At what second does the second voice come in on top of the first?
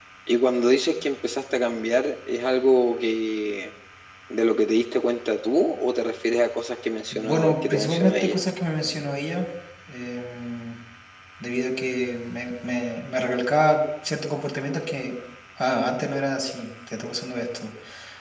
7.1 s

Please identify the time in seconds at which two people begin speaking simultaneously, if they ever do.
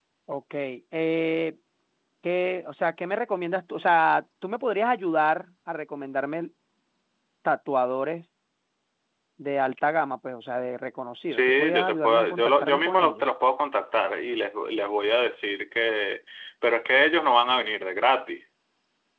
11.3 s

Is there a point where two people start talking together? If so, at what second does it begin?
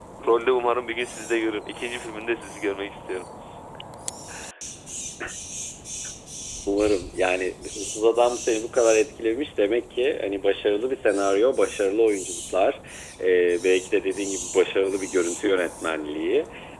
none

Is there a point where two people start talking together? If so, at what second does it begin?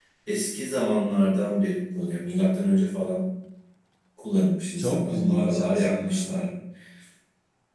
4.8 s

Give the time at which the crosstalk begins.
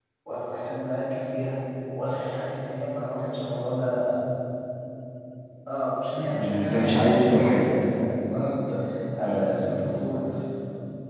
6.2 s

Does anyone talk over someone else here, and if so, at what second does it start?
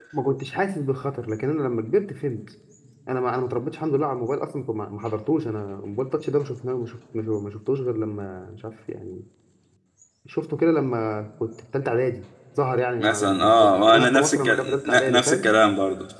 13.0 s

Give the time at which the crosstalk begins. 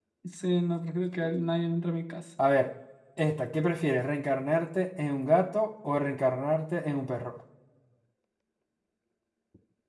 none

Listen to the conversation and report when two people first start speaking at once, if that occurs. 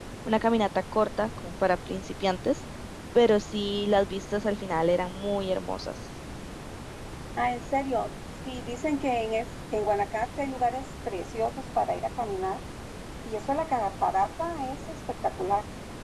none

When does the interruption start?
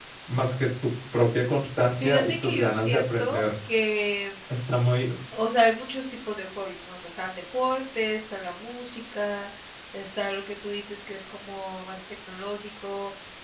2.0 s

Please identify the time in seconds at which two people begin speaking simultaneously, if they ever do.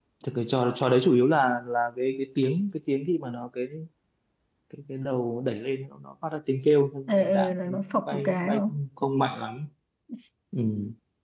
7.1 s

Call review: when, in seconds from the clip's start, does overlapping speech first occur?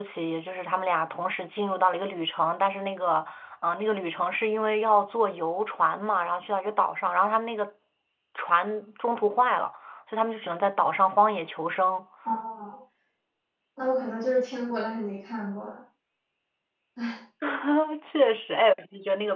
none

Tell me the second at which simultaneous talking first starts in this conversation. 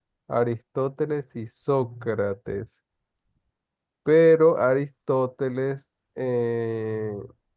none

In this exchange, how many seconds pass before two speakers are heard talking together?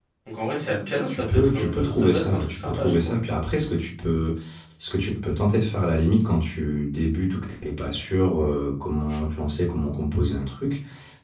1.1 s

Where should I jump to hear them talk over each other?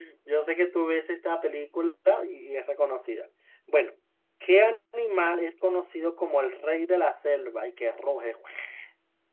none

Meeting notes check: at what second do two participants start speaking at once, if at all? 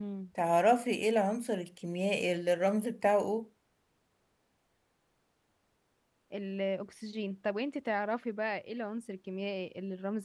none

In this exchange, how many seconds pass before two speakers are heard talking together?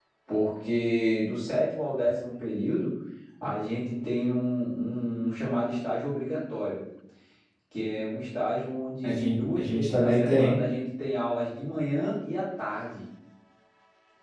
9.0 s

